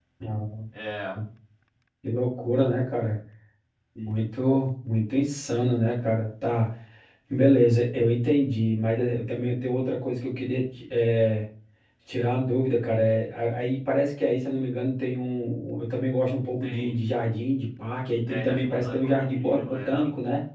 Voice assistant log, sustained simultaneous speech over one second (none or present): present